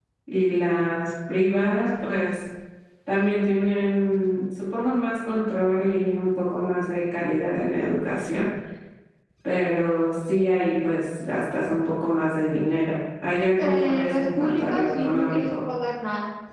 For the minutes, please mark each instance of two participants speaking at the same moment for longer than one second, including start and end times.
13.6-15.6

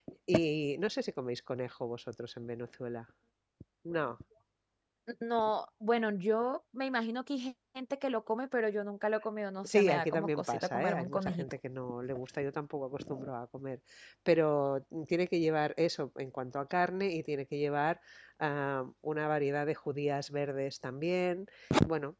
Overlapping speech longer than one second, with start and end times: 9.7-11.4

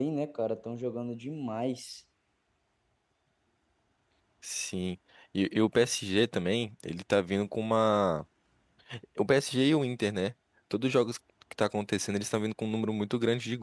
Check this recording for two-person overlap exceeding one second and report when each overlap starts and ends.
none

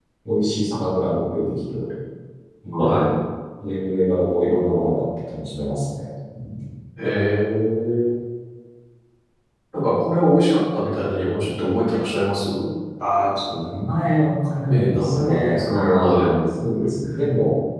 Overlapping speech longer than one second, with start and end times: 14.7-16.4

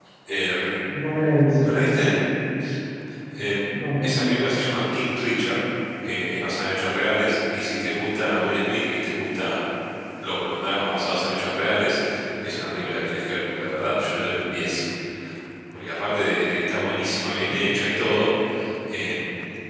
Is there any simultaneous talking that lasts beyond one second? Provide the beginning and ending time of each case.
none

